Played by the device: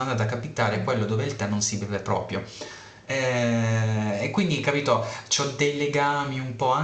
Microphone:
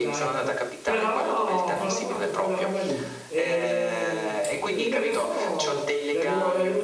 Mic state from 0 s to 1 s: both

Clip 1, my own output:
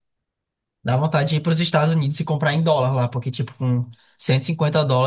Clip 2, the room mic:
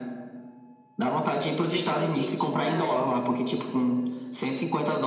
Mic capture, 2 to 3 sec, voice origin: both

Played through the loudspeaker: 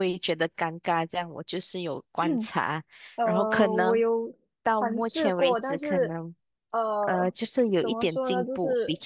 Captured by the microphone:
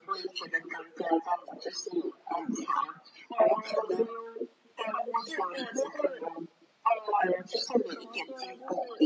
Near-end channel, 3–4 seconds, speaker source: echo only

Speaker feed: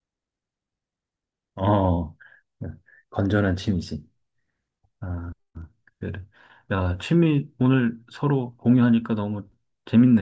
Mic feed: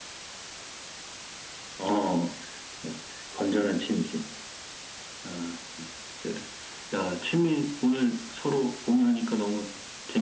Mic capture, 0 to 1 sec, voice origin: neither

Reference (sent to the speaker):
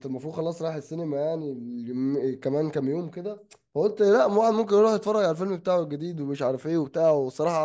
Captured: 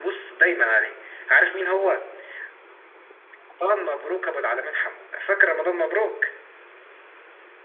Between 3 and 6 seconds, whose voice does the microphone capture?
user only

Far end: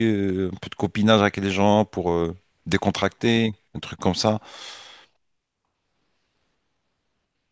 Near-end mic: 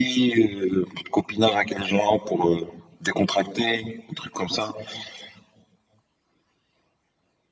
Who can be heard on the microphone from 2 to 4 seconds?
echo only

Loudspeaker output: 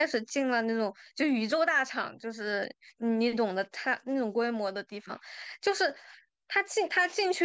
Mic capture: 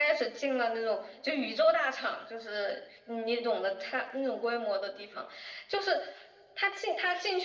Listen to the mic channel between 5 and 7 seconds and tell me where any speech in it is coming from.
echo only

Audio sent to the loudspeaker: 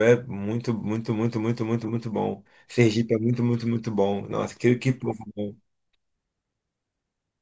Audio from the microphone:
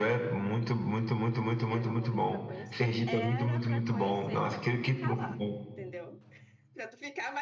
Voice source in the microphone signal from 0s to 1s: echo only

